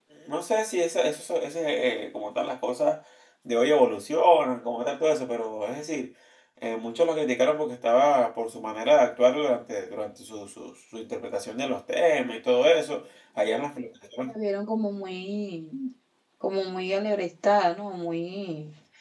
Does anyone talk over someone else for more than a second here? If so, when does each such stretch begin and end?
none

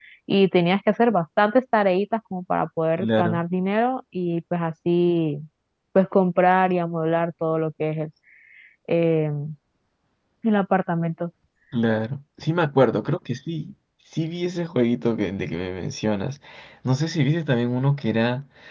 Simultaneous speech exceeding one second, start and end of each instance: none

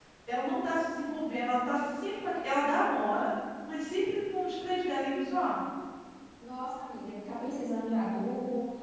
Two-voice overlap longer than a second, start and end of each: none

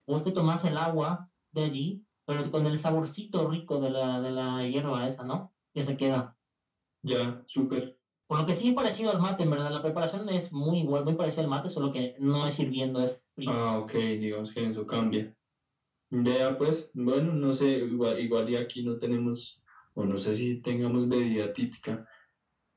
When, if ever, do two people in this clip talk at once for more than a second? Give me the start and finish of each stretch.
none

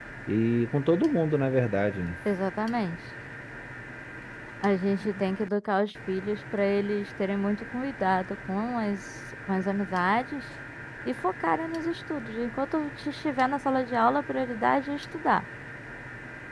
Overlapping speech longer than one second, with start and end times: none

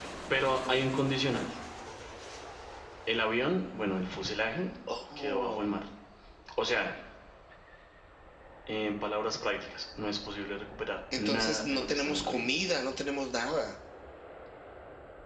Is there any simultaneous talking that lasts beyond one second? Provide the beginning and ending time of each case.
11.2-12.5

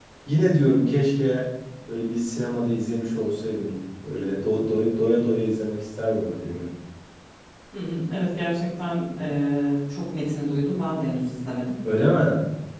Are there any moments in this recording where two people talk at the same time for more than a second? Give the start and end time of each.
none

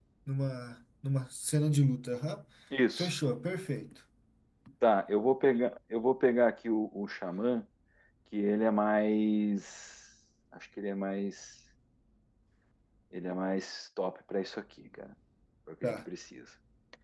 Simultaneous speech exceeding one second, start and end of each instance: none

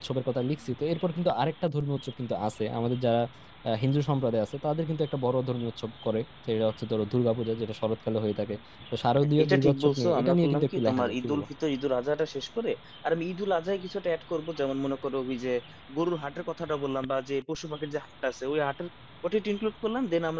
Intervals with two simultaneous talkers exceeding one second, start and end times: 9.4-11.4

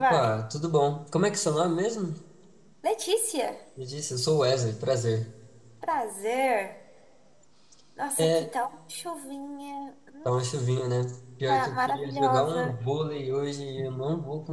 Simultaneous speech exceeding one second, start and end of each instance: 11.5-12.7

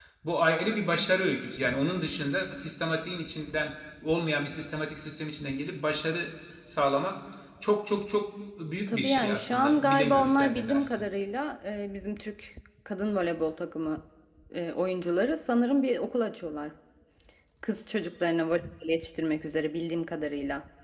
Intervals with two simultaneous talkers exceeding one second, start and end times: 8.9-11.0

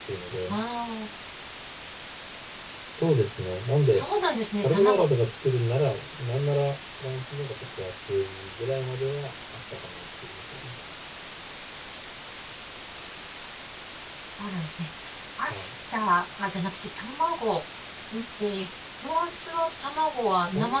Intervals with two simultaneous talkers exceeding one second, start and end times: none

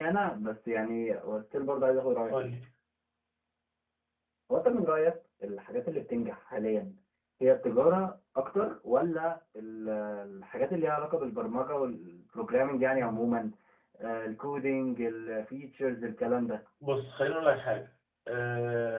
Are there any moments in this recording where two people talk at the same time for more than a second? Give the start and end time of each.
none

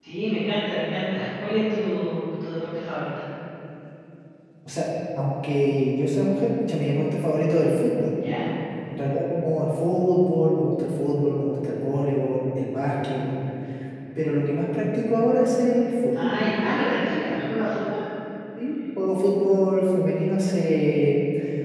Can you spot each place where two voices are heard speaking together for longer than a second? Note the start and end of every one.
none

